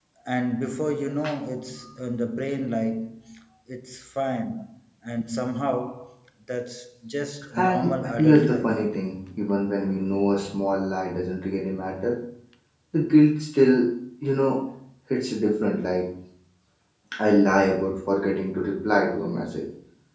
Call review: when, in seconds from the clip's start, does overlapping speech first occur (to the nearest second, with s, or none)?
8 s